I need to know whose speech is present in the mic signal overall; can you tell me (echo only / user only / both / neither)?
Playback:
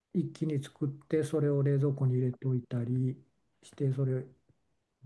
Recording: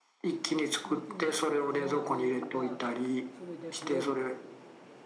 both